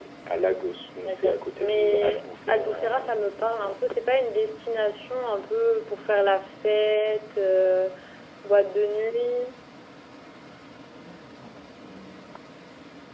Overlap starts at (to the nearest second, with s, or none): 1 s